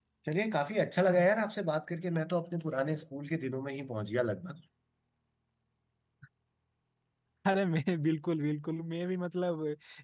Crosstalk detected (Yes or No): No